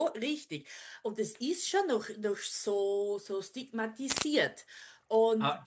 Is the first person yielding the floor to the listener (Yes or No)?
Yes